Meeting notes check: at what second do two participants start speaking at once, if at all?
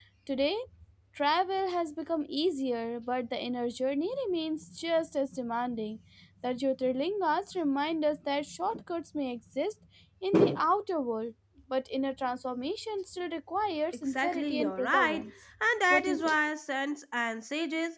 14.1 s

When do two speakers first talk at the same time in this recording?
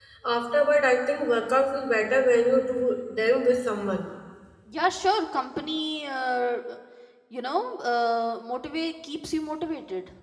none

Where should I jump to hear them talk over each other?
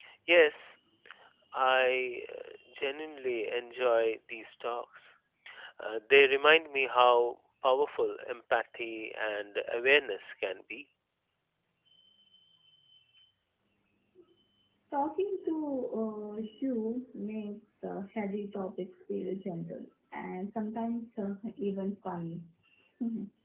none

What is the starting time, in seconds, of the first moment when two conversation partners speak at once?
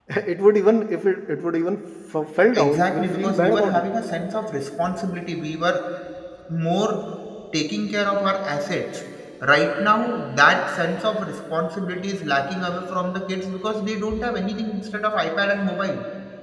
2.5 s

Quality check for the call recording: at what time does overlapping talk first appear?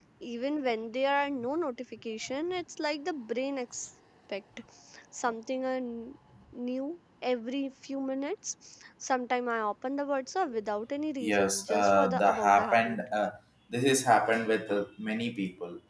11.2 s

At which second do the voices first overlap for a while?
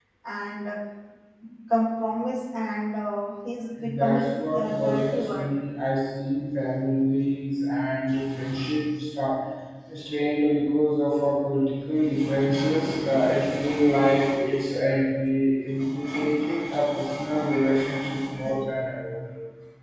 3.8 s

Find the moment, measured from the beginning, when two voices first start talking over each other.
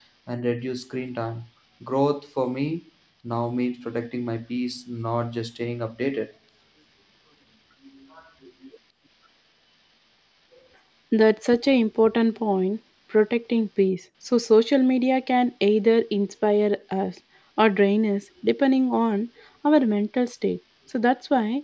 none

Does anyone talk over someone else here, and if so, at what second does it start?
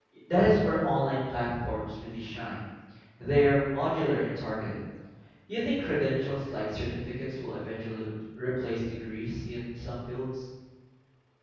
none

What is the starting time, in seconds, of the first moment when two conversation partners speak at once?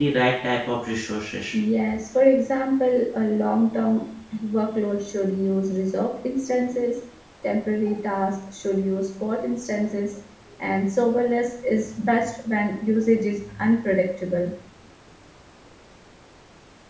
none

